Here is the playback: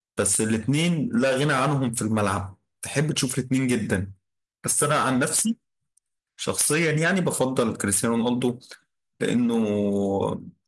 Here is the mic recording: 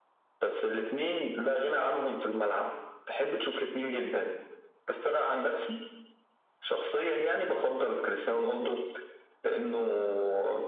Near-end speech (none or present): none